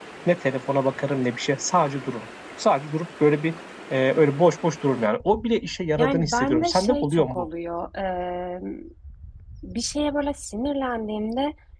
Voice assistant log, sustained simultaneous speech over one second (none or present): present